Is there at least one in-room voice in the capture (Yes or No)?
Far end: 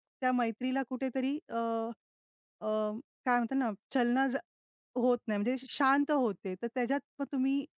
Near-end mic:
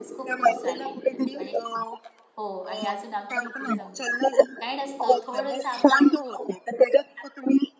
Yes